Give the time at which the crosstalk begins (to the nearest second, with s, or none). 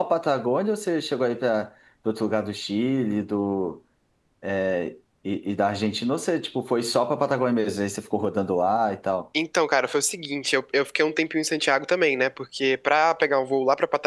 none